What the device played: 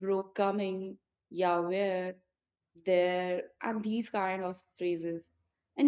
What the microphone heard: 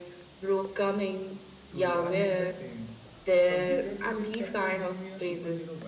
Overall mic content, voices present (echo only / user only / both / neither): both